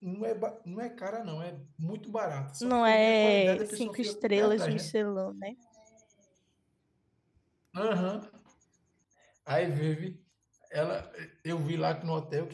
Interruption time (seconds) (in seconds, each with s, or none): 2.6 s